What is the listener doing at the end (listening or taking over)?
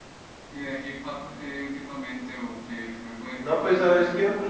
taking over